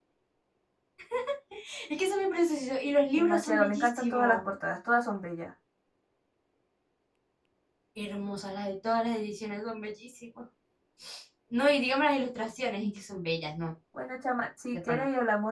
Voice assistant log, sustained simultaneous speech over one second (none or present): present